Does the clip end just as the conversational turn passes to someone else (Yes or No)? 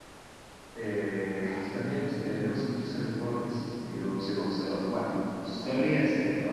No